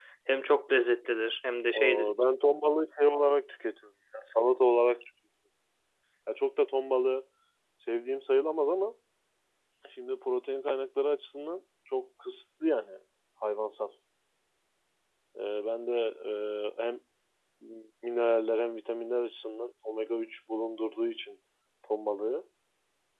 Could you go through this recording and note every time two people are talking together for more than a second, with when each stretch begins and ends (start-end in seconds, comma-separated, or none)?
none